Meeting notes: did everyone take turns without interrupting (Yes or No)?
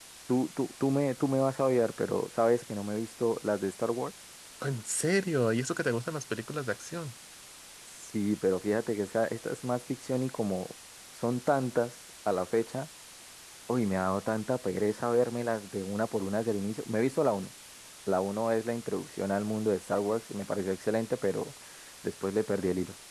Yes